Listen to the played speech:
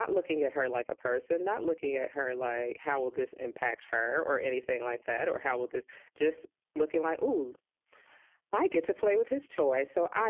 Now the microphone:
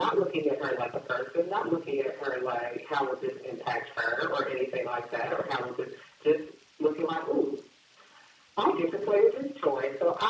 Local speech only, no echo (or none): none